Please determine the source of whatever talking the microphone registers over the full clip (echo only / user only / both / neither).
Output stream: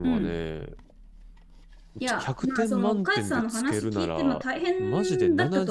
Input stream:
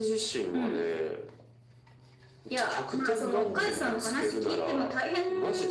both